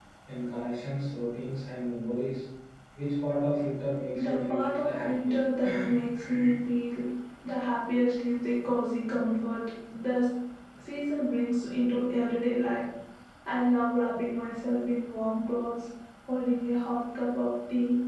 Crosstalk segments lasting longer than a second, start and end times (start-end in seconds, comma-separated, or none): 4.1-5.4